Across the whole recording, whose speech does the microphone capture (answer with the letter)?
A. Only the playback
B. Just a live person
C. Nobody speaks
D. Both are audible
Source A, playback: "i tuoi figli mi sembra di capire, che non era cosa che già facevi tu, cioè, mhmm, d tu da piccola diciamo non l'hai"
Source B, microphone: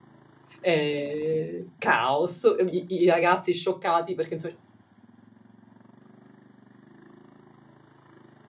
B